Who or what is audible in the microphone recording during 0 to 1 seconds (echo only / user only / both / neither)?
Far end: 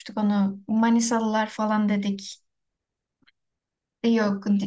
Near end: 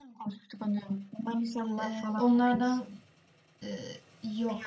echo only